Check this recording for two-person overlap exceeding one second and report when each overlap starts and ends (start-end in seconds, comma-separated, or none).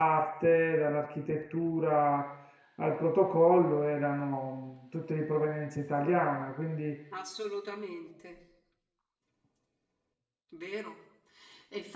none